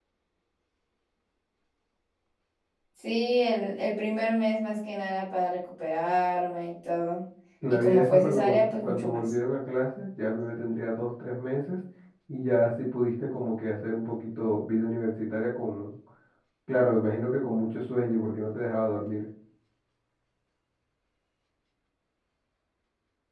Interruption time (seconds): 7.7 s

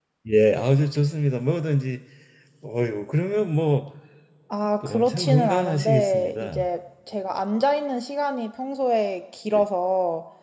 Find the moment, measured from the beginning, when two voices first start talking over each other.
4.8 s

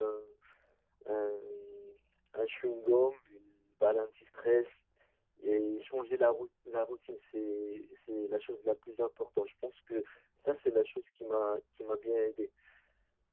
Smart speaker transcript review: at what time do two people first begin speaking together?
none

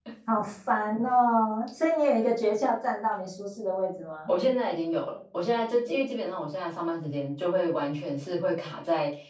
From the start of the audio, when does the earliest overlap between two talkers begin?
none

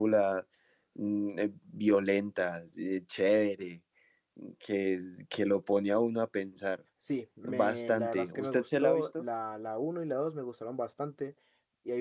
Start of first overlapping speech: 7.4 s

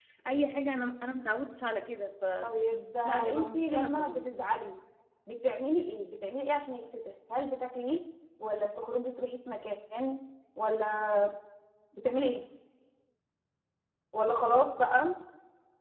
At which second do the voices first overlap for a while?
3.0 s

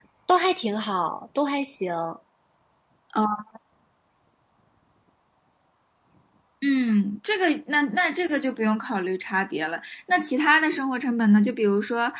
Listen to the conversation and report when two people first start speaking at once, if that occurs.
none

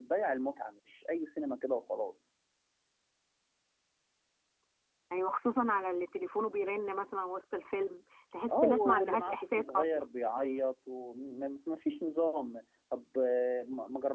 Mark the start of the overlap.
8.5 s

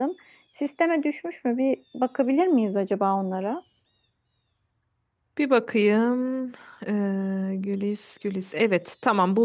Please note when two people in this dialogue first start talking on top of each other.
none

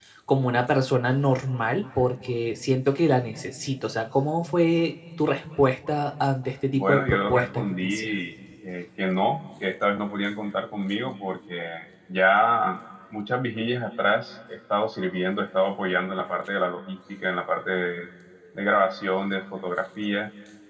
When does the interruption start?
6.7 s

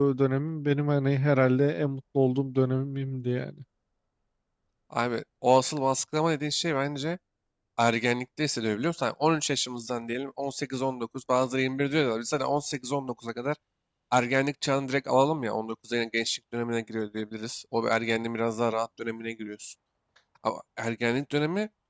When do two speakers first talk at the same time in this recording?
none

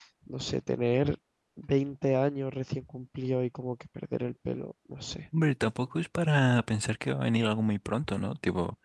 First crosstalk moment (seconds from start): none

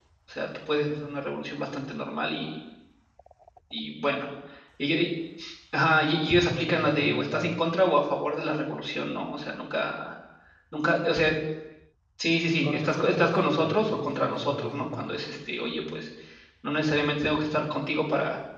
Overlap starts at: 6.3 s

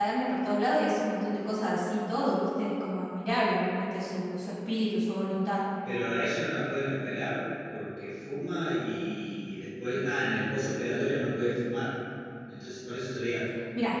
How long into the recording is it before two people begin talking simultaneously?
none

